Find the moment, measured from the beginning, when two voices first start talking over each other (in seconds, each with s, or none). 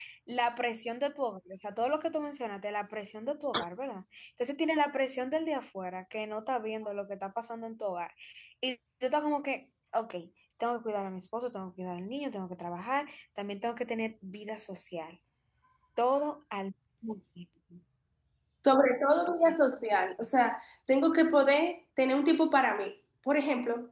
none